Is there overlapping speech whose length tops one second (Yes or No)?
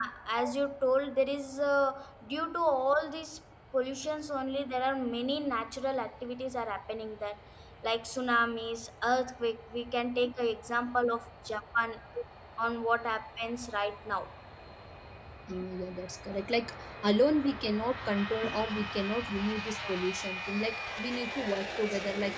No